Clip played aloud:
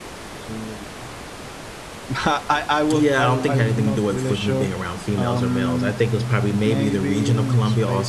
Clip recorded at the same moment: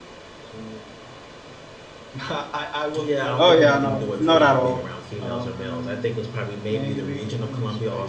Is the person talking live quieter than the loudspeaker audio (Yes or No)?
No